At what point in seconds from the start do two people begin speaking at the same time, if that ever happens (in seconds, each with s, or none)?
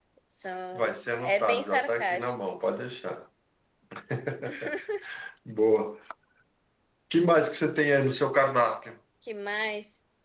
0.7 s